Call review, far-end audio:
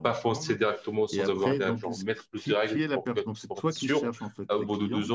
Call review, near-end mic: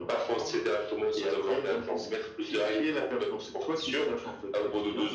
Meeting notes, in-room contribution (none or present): none